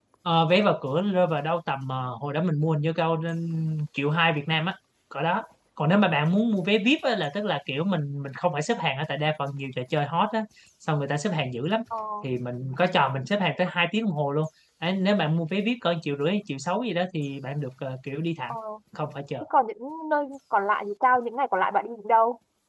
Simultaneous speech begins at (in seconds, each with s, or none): none